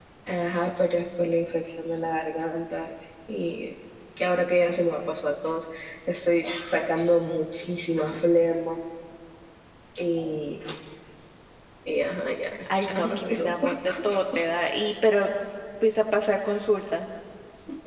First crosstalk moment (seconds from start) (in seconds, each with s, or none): 12.7 s